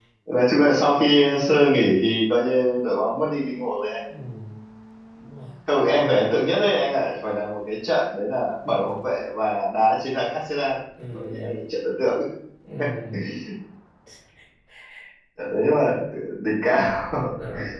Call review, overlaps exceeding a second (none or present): none